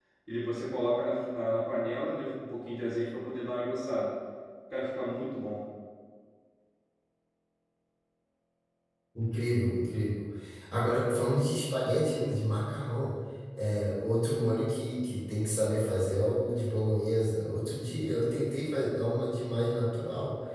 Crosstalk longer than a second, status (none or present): none